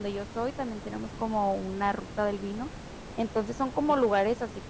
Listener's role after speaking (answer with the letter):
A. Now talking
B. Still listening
B